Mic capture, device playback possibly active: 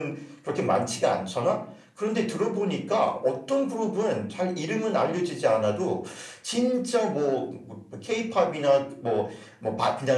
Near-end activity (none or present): none